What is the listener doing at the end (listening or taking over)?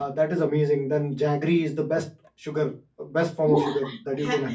taking over